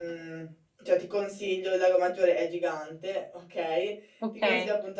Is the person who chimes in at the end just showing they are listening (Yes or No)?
Yes